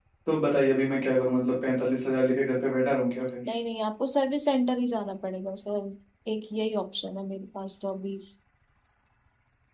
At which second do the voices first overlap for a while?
none

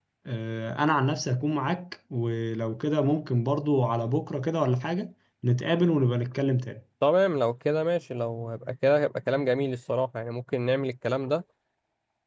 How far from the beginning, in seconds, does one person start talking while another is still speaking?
none

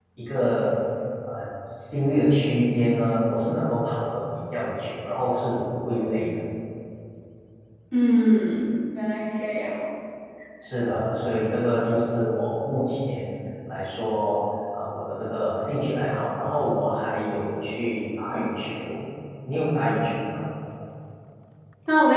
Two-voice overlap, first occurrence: none

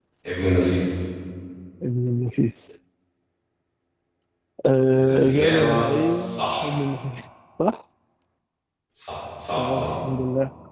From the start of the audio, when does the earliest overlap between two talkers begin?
5 s

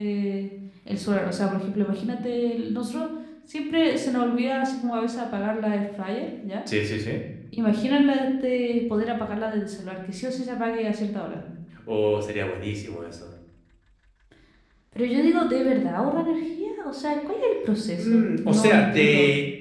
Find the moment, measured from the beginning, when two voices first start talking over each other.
18 s

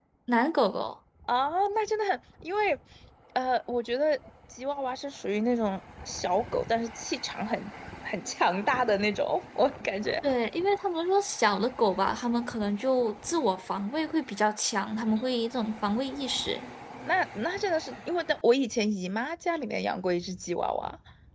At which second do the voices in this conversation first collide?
none

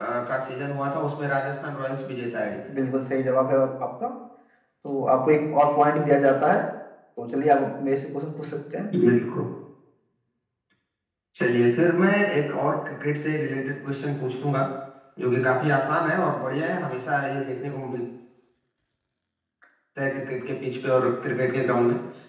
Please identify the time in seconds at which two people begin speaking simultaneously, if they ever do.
none

